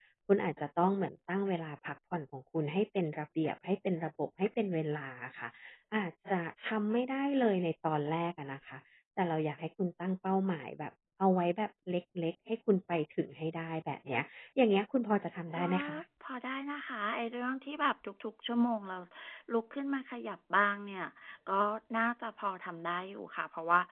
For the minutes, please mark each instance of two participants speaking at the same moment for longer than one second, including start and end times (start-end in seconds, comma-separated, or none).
none